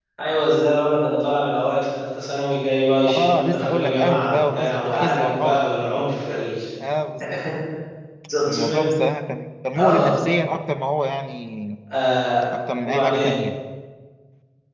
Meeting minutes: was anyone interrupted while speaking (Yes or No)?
Yes